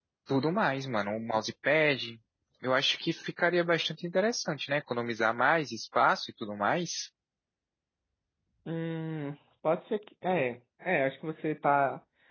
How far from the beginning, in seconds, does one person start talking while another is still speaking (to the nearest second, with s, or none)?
none